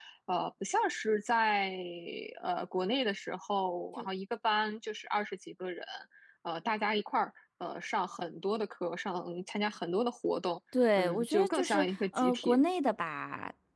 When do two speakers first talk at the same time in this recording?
11.0 s

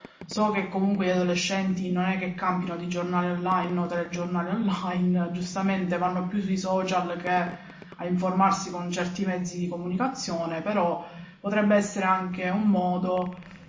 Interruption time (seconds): none

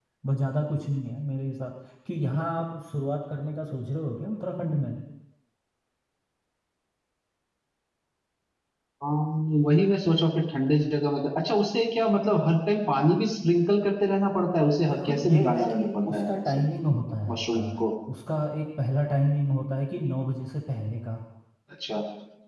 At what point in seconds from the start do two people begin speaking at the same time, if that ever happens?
14.9 s

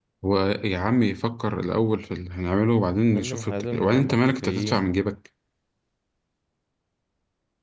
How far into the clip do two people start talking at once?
3.1 s

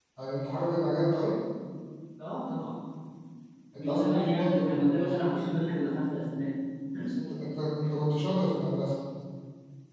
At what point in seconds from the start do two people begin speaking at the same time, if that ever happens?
3.8 s

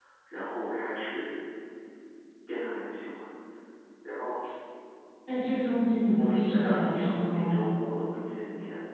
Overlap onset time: 6.2 s

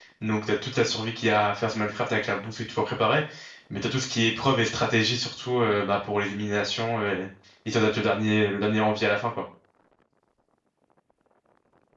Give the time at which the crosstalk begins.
none

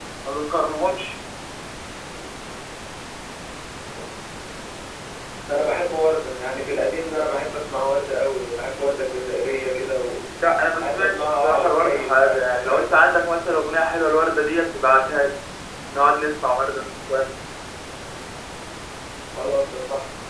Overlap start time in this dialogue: 10.8 s

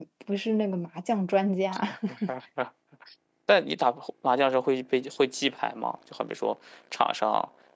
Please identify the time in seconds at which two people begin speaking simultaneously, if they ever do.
none

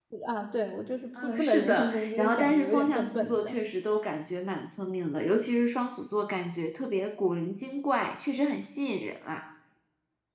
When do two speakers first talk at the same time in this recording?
1.2 s

